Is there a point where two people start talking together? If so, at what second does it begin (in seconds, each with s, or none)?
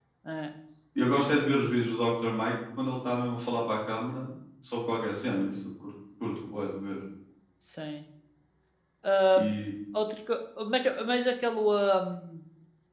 none